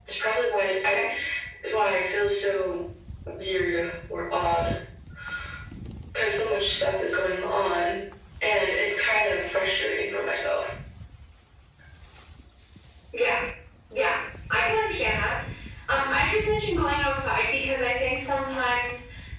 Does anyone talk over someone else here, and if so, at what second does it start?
none

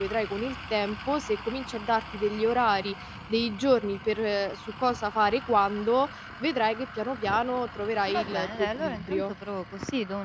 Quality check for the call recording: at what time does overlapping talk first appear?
8 s

